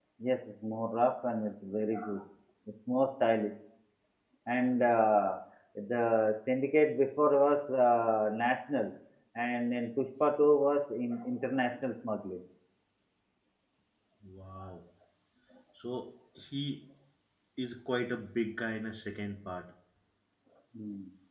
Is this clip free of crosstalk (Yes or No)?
Yes